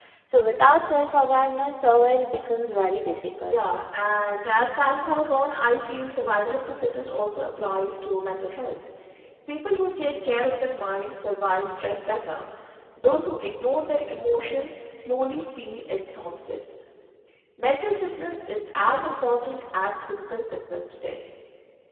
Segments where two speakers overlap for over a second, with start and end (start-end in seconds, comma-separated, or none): none